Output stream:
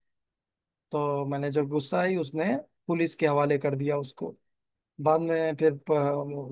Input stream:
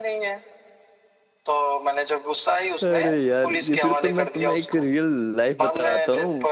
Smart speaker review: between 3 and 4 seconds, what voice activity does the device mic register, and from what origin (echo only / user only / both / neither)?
both